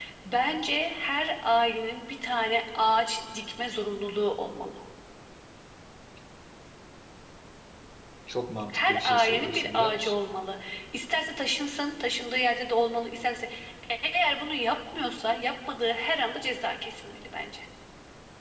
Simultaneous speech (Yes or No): Yes